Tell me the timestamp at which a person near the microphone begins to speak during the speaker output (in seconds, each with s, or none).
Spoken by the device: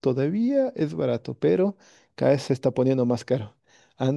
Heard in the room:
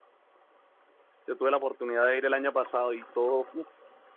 1.3 s